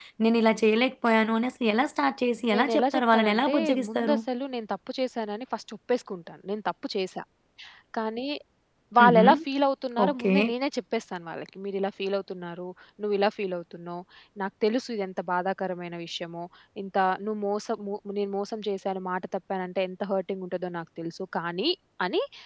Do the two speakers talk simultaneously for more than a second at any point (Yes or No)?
Yes